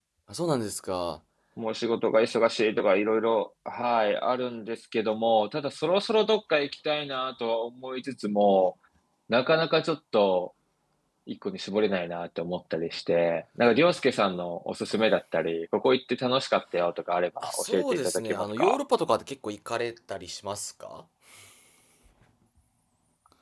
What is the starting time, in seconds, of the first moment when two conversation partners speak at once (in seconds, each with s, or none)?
17.4 s